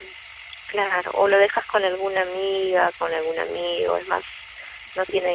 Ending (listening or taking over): listening